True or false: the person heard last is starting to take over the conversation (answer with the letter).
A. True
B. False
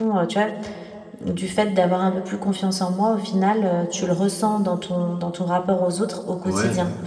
A